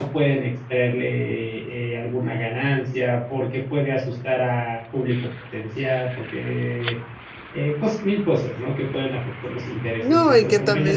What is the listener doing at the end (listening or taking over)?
taking over